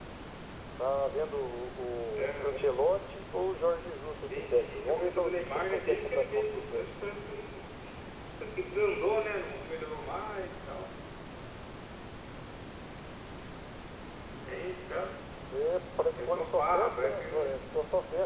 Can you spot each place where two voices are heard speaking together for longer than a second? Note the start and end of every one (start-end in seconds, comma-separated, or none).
4.2-7.0, 16.1-17.6